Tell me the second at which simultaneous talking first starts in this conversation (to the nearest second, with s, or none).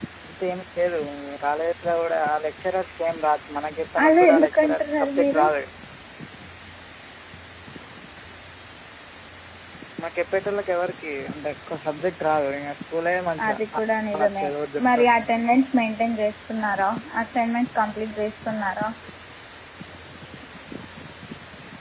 4 s